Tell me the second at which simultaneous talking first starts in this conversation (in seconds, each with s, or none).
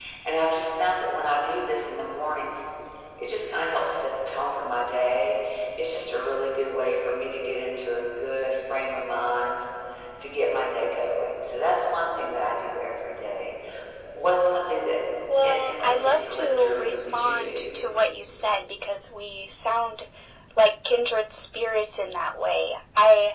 15.4 s